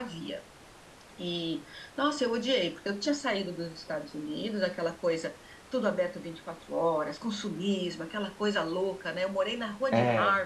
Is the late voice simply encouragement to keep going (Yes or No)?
Yes